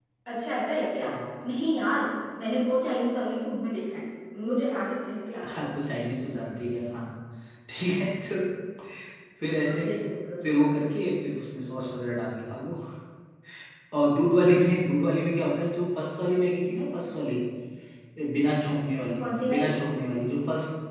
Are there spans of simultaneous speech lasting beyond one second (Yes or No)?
No